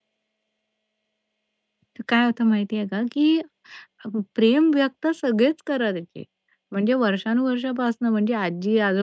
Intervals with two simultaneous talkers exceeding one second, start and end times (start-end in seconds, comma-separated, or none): none